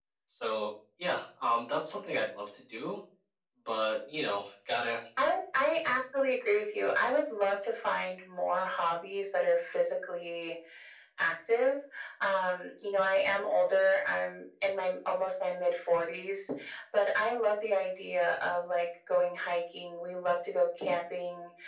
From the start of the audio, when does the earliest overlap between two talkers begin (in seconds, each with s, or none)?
none